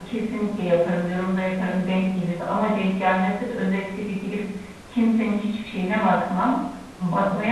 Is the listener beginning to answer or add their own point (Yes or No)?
No